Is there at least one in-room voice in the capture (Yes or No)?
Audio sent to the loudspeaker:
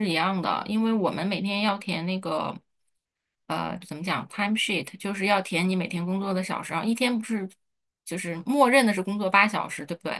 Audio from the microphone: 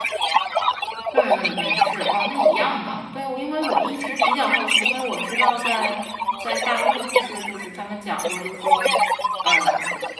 Yes